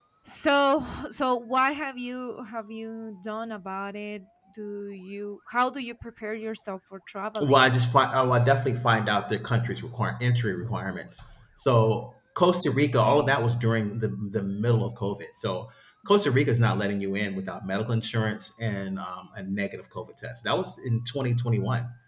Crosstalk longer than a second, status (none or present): none